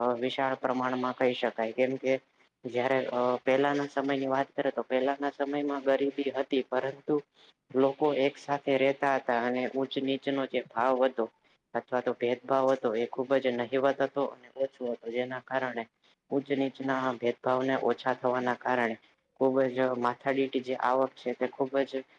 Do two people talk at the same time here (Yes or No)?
No